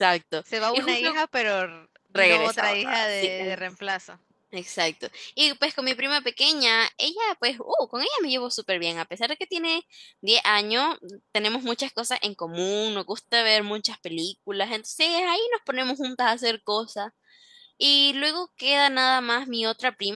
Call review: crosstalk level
present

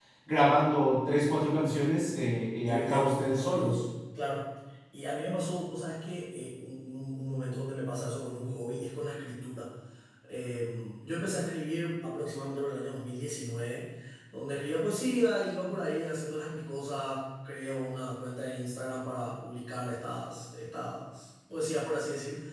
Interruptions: present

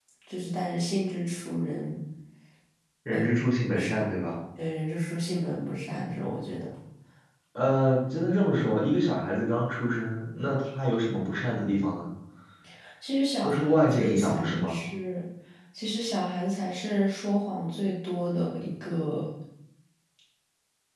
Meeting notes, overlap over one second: present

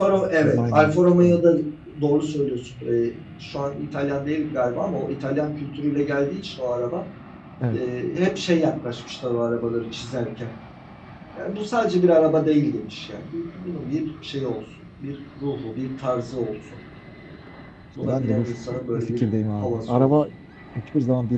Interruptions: present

